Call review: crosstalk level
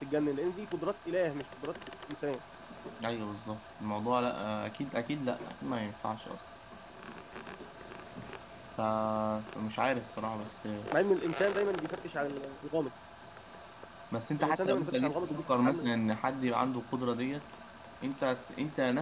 present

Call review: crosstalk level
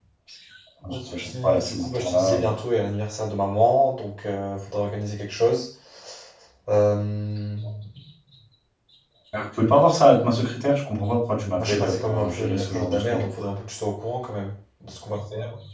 present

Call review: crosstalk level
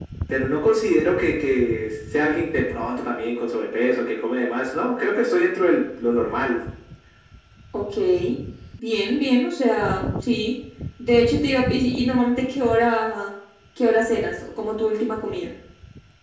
none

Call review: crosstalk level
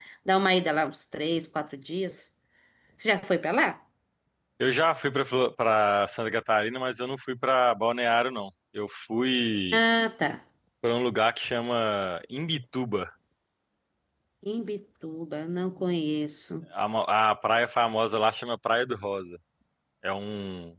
none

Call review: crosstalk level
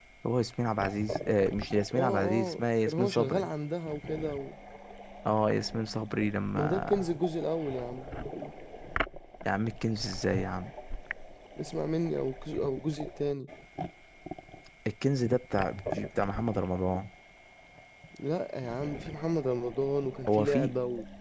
present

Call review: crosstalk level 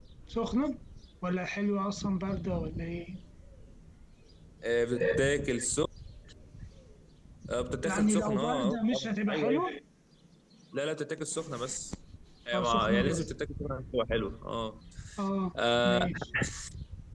present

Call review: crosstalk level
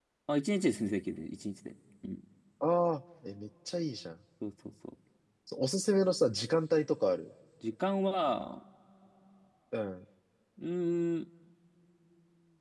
none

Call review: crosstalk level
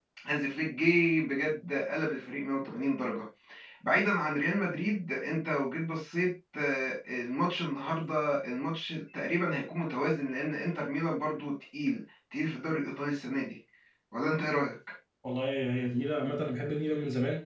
none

